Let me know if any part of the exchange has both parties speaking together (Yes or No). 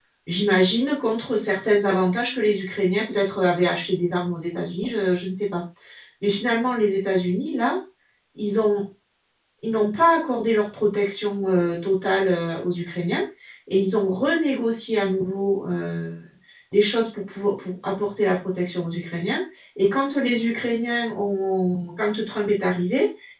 No